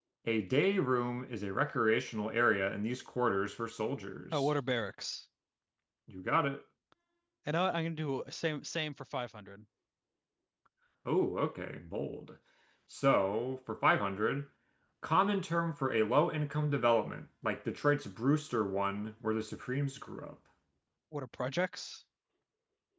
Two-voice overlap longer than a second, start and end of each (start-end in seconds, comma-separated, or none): none